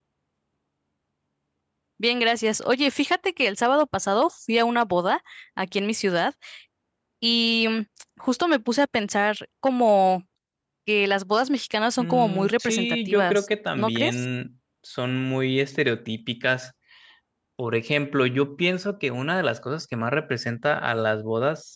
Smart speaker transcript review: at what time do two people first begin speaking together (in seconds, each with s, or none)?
12.0 s